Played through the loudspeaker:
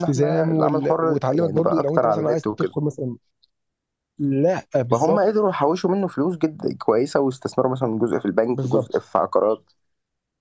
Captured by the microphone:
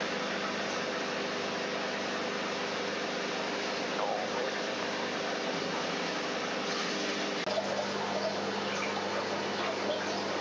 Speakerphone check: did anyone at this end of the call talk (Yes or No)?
No